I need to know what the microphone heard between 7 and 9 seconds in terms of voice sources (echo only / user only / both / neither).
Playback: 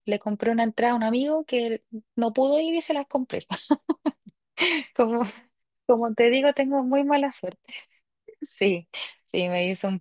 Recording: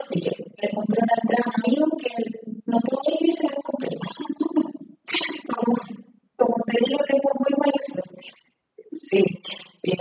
echo only